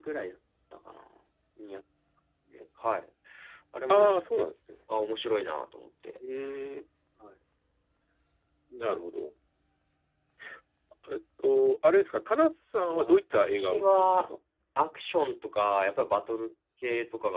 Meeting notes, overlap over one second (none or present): present